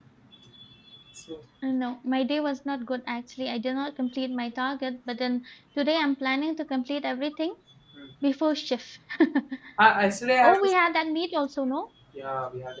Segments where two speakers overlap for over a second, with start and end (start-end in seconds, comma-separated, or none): none